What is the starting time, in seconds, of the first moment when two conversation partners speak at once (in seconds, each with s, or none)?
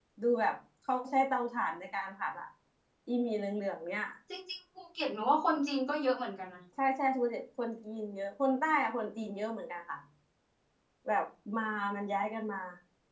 none